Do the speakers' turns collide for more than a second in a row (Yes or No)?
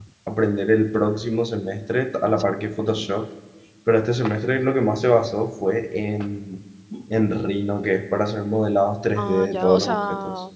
Yes